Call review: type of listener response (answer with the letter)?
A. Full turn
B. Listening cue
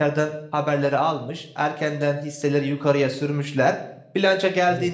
B